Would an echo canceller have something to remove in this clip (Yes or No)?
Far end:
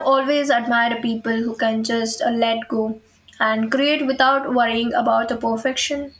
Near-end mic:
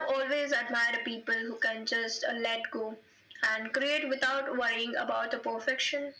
Yes